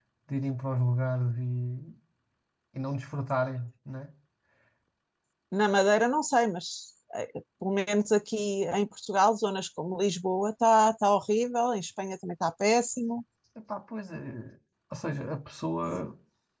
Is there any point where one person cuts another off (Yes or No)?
No